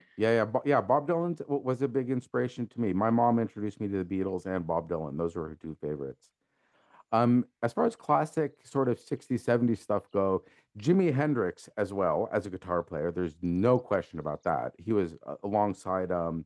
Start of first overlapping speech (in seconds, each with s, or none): none